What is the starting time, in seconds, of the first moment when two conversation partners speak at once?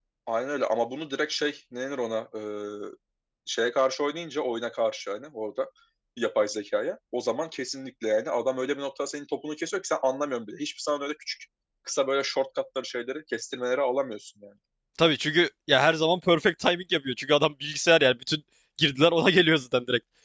none

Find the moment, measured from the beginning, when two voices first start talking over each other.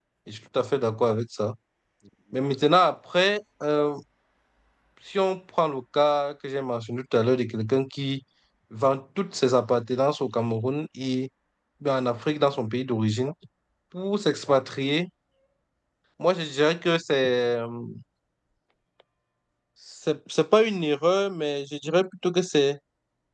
none

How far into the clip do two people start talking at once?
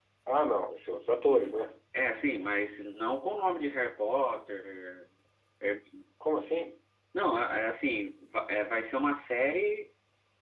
none

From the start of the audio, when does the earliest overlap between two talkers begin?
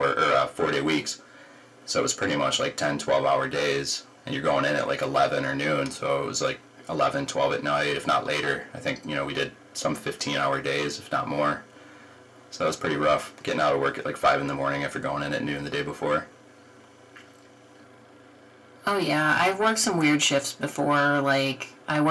none

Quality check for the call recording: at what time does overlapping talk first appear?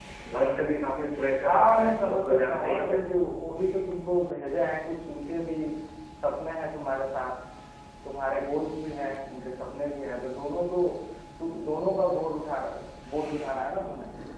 1.4 s

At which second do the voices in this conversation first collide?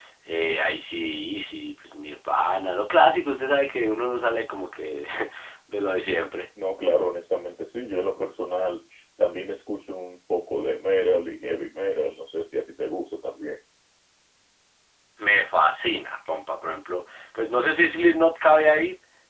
none

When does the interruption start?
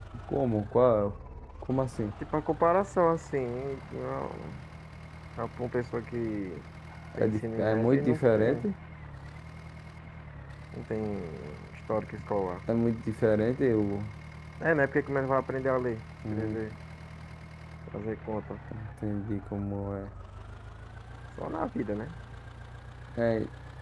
7.2 s

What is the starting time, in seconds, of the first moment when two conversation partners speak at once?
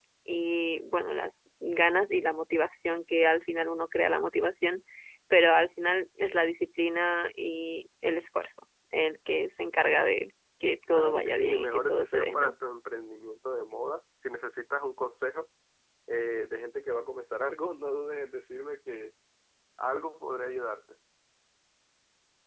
10.9 s

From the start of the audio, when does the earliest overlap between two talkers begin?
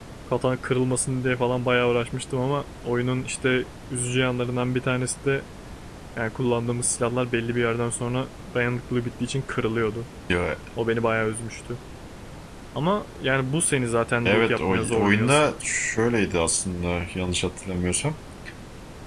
14.2 s

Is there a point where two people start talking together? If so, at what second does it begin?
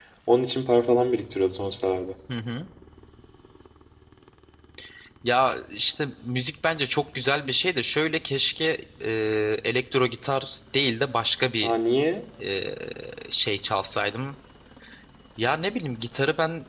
none

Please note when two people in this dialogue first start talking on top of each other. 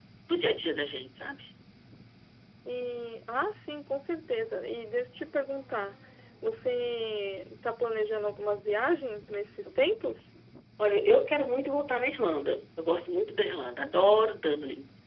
none

